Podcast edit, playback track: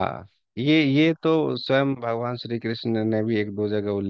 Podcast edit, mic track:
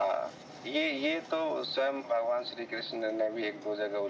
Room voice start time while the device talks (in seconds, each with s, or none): none